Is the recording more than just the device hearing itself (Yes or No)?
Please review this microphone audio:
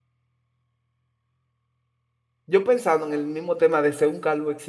Yes